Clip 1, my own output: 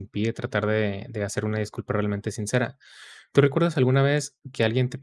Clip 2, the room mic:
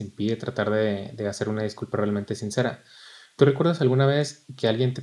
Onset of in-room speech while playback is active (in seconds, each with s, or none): none